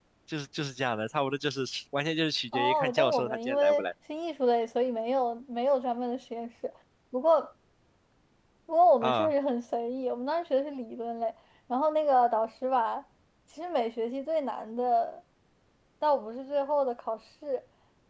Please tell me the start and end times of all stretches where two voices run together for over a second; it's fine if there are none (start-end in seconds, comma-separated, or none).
2.5-3.9